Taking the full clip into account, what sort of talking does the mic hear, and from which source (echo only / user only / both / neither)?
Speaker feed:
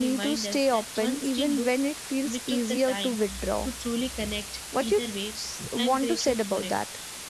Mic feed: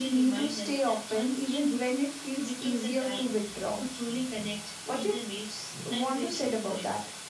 echo only